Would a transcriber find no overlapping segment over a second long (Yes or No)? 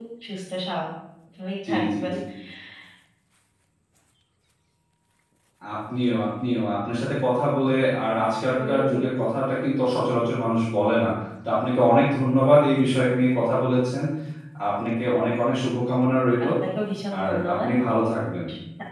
Yes